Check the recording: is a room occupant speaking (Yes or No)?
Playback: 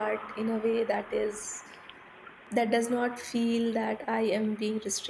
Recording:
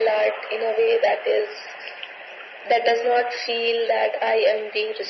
No